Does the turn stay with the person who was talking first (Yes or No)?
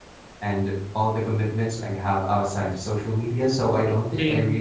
Yes